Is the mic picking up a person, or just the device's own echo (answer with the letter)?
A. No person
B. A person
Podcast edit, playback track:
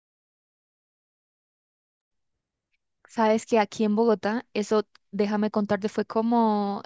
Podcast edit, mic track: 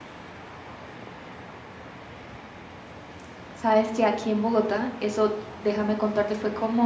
A